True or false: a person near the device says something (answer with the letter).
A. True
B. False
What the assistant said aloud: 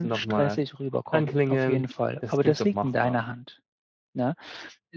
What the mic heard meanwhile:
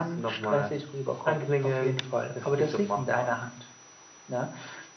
B